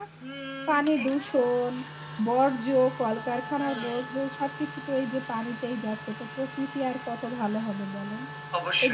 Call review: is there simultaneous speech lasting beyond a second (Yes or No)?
No